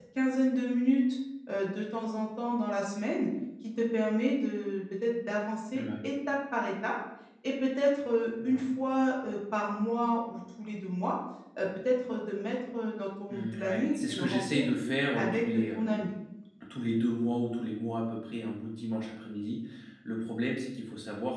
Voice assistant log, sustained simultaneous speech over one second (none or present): present